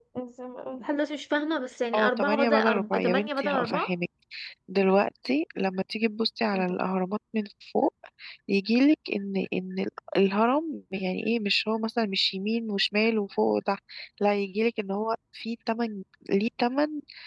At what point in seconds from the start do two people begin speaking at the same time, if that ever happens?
2 s

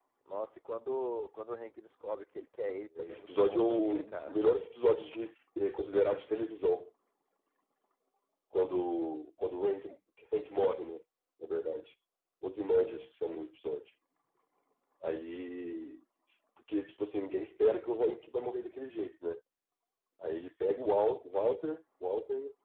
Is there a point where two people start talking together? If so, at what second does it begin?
3 s

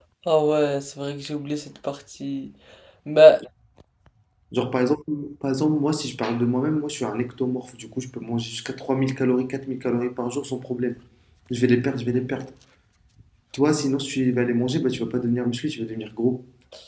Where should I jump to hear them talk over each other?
none

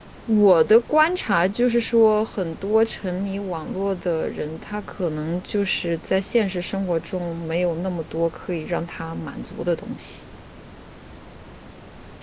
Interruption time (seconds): none

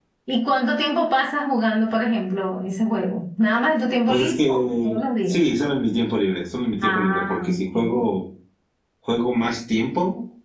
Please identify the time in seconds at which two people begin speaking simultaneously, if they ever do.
4 s

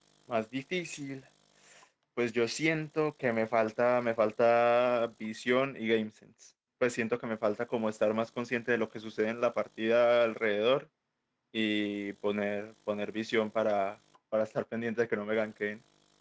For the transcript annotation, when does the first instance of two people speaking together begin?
none

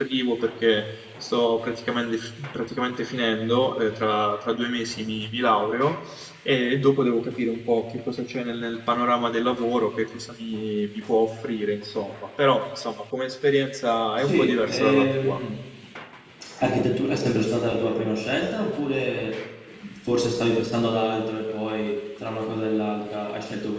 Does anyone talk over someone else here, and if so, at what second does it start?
14 s

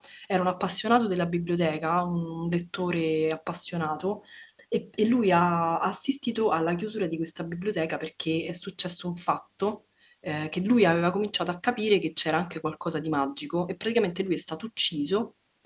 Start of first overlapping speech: none

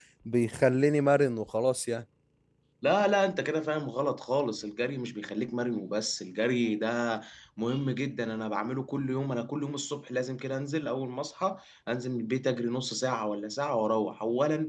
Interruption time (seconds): none

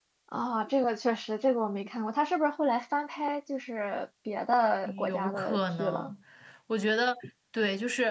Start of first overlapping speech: 5 s

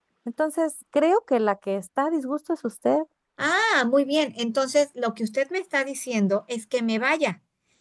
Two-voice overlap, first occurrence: none

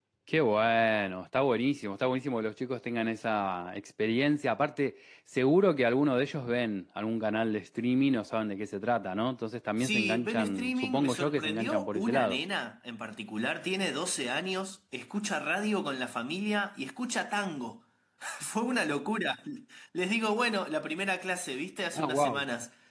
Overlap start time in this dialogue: 10 s

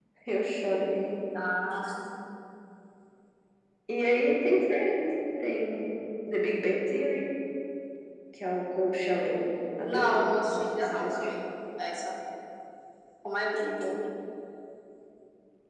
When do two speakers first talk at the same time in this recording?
10 s

